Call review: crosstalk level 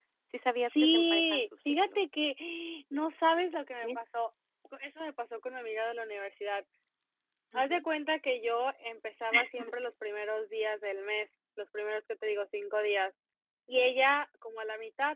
present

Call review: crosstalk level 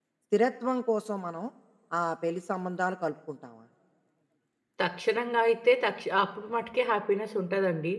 none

